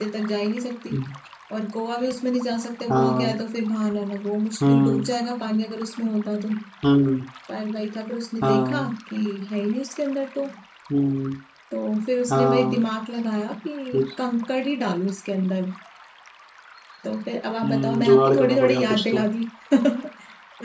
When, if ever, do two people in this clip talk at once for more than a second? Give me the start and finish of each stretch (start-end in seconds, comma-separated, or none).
17.6-19.2